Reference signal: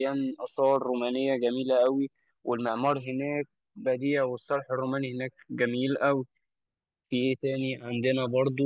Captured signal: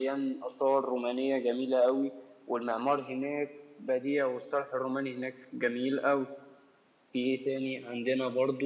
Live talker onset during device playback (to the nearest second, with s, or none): none